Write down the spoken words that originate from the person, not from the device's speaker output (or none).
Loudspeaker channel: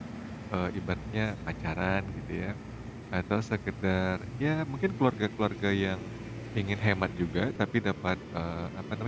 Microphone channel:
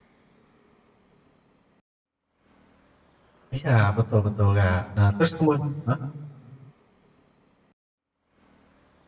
Iya, betul betul, Kak. Nah, terus kemu heeh?